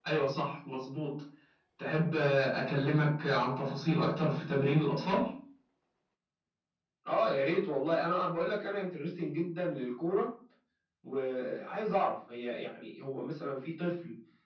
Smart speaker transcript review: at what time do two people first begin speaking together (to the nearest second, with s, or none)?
none